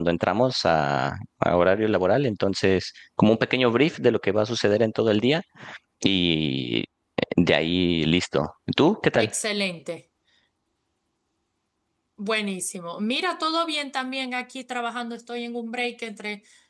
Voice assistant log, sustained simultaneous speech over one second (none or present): none